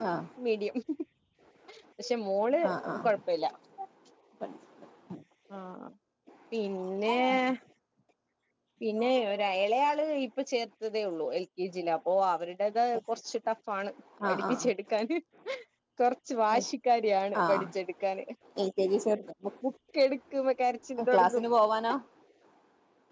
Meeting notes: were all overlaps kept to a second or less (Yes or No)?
Yes